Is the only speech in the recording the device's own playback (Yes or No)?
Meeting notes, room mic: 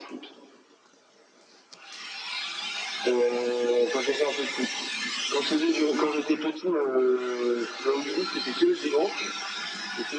Yes